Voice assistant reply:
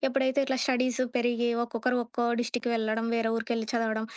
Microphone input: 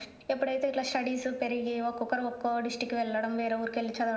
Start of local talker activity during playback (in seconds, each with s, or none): none